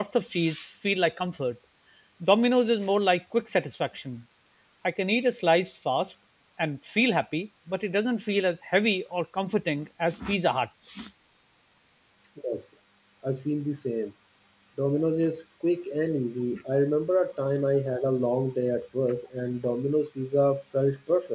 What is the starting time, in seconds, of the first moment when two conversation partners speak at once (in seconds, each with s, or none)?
none